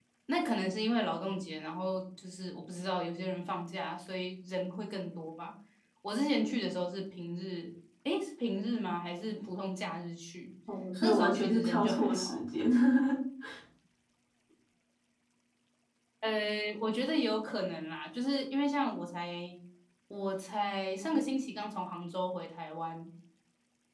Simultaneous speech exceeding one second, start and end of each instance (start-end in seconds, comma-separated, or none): 11.0-12.4